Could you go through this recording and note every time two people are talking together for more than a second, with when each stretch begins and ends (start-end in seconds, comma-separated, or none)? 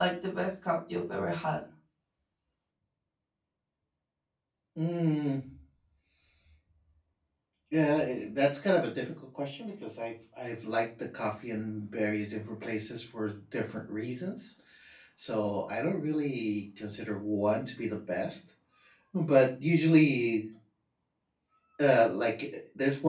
none